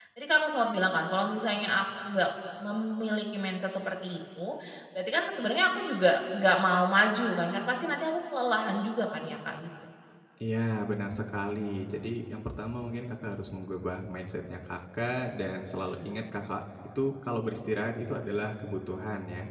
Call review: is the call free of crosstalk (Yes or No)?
Yes